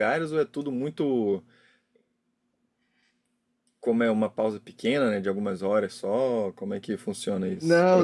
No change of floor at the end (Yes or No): No